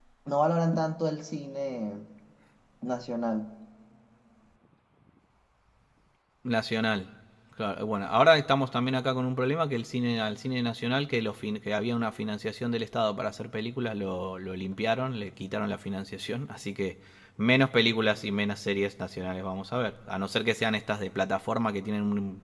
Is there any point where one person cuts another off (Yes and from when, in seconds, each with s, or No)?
No